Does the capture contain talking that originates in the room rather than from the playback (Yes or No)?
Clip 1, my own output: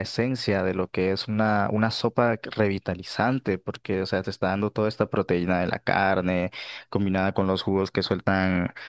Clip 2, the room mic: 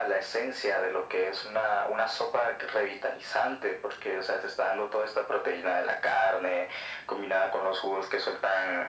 No